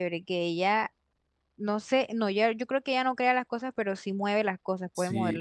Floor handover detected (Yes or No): Yes